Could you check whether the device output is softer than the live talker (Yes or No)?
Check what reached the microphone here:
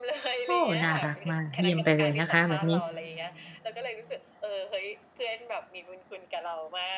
Yes